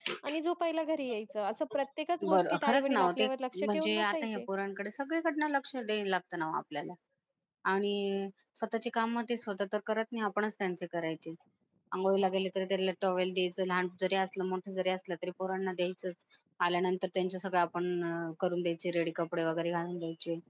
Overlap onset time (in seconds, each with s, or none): 2.2 s